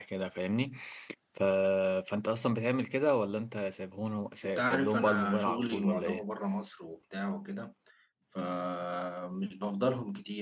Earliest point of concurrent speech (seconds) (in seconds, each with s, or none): 4.4 s